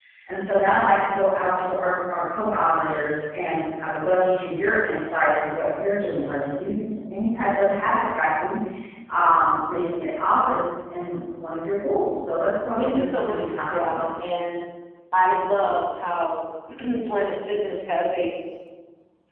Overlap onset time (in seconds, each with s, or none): 12.8 s